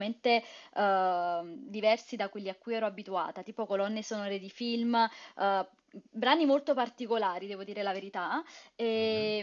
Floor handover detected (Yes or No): No